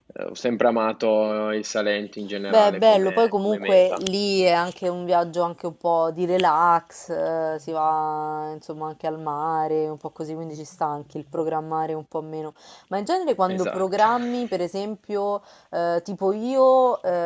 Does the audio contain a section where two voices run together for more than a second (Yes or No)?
Yes